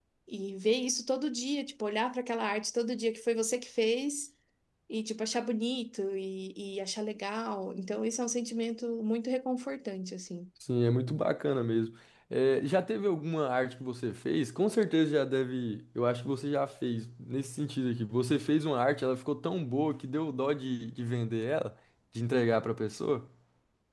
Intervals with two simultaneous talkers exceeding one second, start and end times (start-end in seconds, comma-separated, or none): none